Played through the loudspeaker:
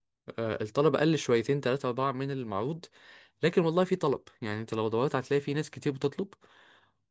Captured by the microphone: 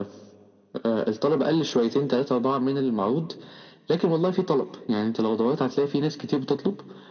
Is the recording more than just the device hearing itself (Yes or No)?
No